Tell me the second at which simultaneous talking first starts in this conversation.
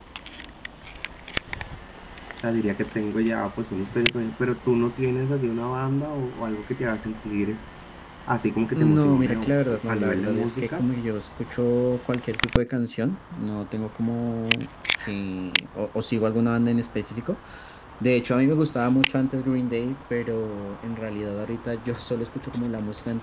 8.8 s

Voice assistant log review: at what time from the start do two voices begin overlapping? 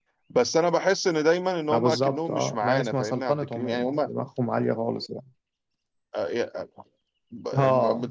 1.7 s

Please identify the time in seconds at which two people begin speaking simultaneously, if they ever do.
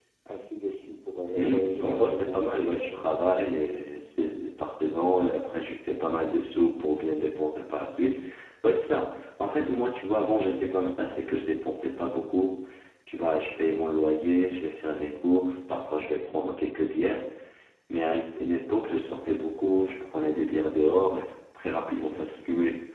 1.3 s

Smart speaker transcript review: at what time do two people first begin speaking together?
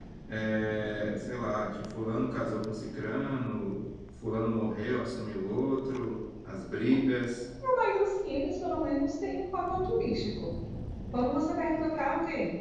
none

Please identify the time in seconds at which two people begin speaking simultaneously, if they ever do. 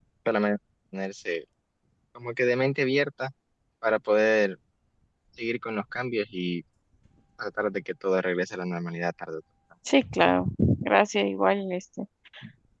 none

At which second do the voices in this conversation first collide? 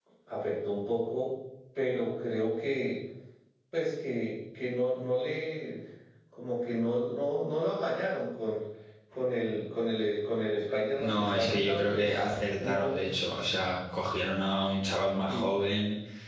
10.9 s

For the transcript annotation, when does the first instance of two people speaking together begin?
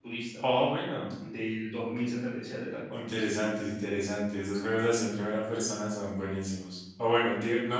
none

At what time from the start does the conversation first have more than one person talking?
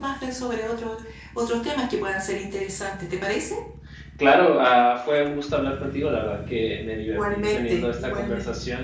7.2 s

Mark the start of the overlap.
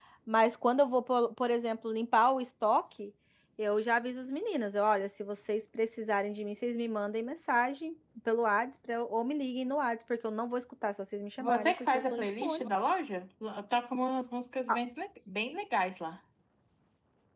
11.4 s

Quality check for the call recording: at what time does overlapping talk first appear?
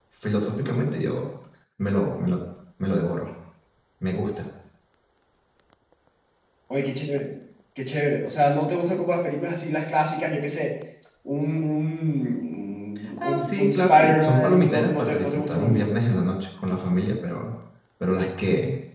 13.2 s

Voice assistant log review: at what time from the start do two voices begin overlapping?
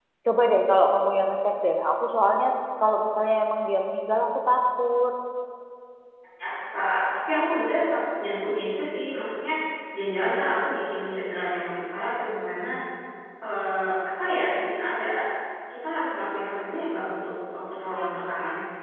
none

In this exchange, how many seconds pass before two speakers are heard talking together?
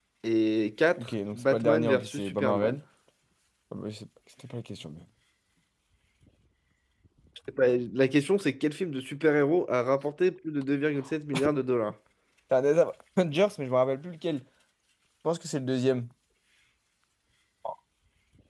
1.0 s

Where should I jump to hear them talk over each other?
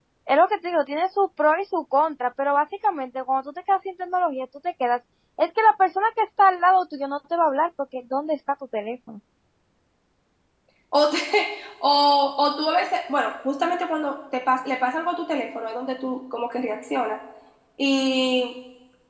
none

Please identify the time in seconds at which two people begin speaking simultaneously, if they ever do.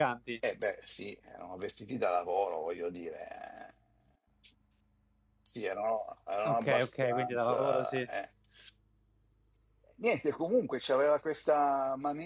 6.4 s

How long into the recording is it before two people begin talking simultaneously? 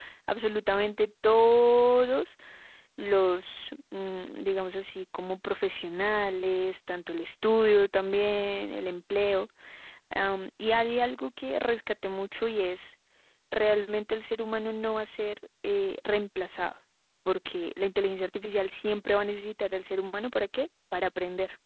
none

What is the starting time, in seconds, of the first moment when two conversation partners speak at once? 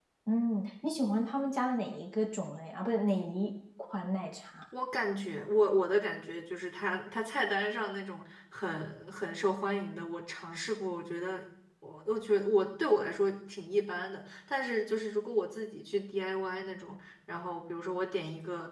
none

